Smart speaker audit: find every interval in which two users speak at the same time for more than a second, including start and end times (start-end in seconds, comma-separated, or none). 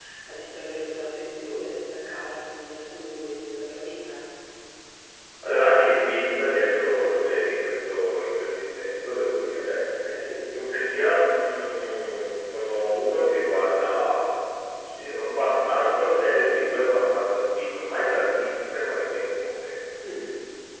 none